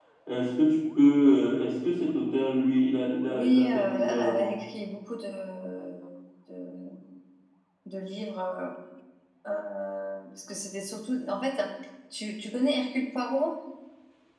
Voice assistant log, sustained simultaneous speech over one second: present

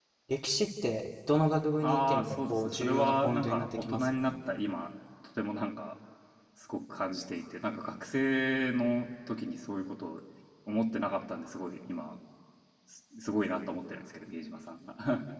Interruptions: present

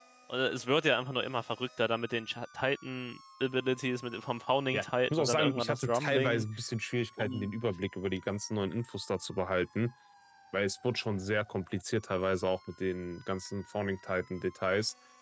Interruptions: present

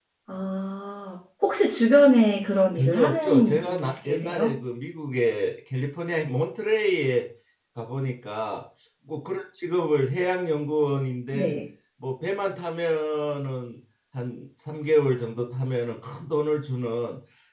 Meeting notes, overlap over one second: present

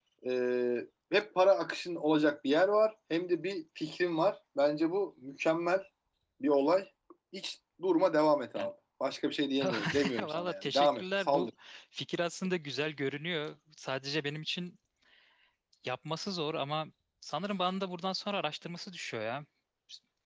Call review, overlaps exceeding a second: present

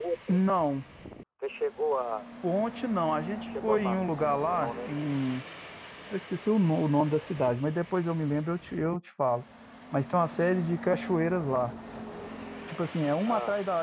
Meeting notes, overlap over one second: present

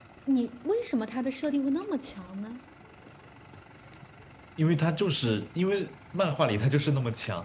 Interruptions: none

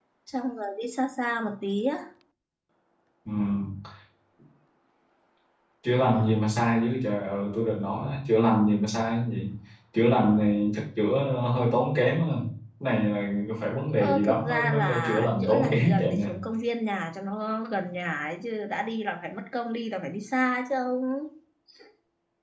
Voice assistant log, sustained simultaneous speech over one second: present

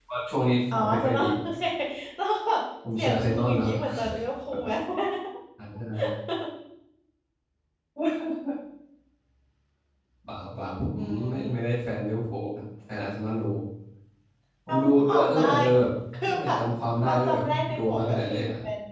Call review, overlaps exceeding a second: present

